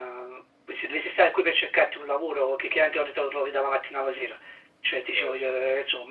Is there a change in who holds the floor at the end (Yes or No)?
Yes